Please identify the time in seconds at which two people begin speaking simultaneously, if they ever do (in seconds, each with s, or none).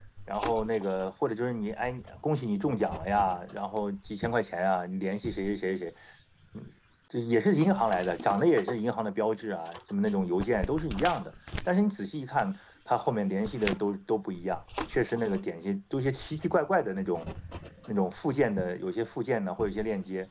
none